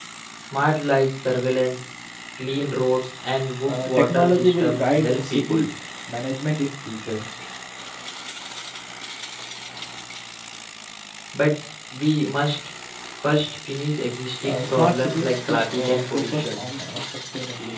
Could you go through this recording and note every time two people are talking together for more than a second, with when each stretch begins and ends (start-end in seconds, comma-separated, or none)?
3.6-5.6, 14.4-16.8